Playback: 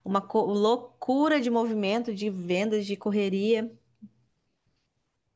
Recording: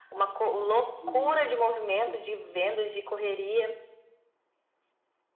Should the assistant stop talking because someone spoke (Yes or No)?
Yes